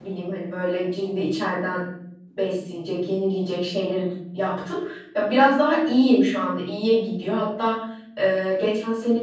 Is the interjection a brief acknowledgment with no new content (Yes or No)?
Yes